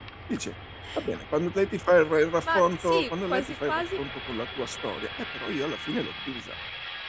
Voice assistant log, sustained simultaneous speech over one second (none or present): present